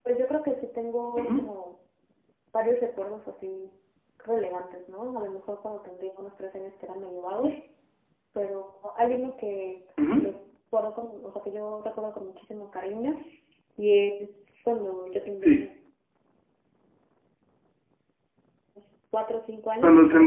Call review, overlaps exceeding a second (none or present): none